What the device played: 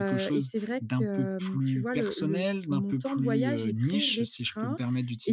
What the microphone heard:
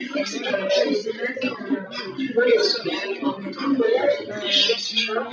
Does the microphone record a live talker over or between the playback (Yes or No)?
Yes